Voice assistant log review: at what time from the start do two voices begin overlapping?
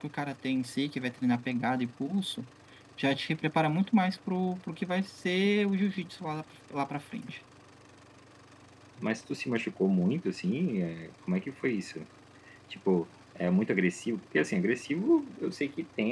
none

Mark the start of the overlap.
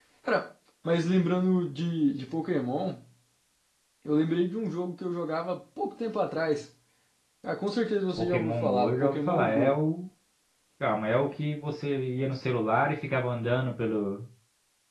8.2 s

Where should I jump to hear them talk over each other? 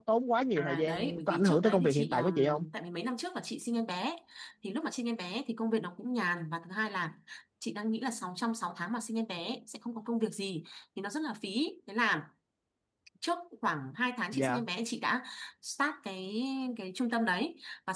0.6 s

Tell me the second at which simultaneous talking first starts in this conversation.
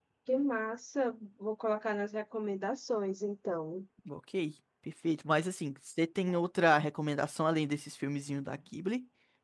none

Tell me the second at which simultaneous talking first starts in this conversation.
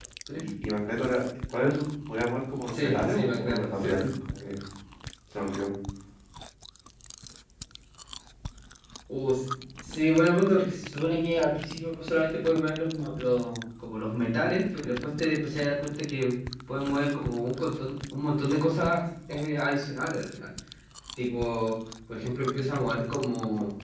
2.7 s

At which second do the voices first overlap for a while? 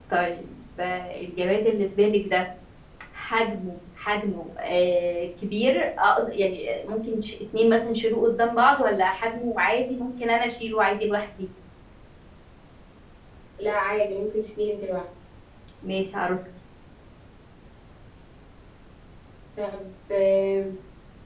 none

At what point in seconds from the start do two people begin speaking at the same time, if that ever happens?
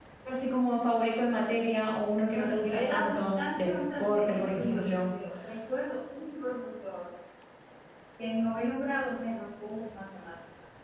2.2 s

